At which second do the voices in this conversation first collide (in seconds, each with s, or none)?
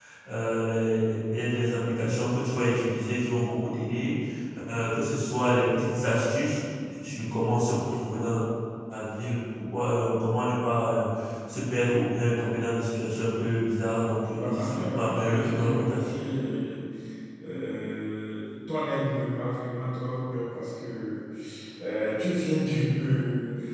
14.4 s